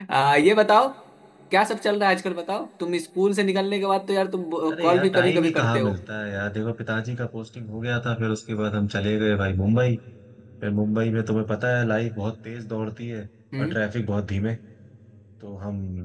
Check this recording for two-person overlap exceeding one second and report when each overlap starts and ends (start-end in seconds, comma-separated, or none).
4.7-5.9